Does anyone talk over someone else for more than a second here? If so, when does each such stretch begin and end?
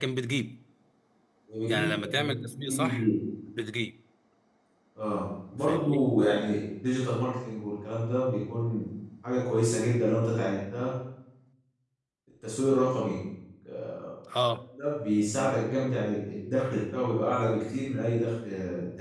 1.7-3.1

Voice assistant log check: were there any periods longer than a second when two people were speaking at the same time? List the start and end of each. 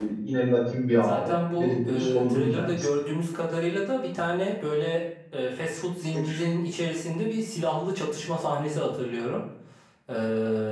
0.9-2.9

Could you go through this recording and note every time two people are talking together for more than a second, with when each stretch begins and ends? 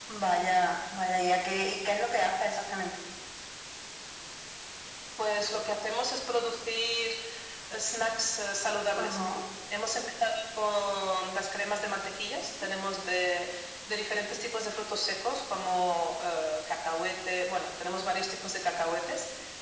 none

